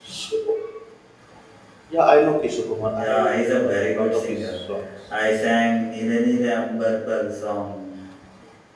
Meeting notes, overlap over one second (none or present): present